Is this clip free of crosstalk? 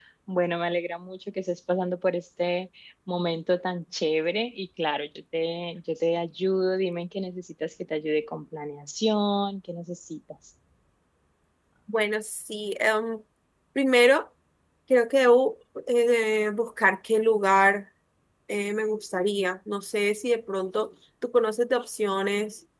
Yes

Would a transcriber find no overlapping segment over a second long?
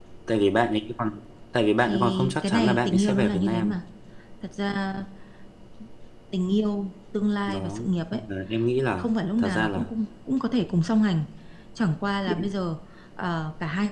No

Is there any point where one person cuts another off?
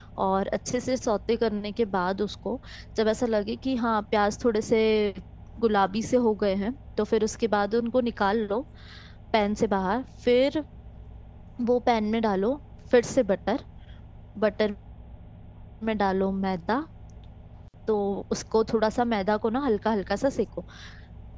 No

